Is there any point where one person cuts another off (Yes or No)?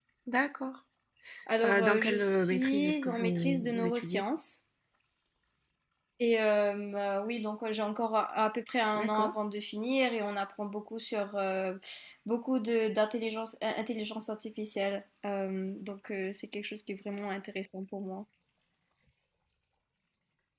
Yes